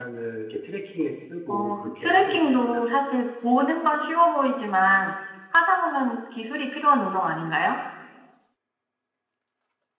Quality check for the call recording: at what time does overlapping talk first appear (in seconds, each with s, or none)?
1.5 s